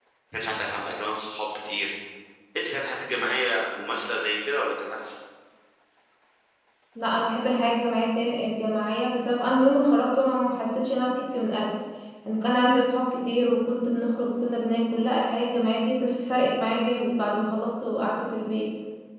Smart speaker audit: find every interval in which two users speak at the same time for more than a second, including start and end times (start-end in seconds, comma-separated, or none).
none